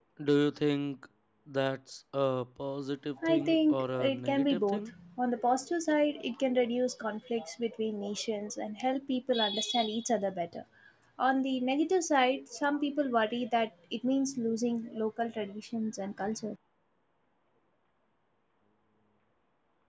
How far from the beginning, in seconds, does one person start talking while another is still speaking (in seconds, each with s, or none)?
3.2 s